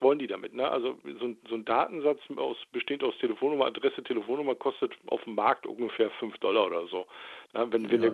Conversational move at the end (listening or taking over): listening